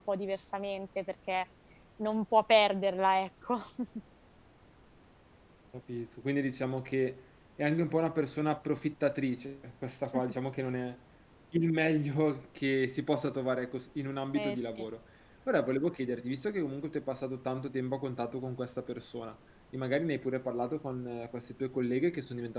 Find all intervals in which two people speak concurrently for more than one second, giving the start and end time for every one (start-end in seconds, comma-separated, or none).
none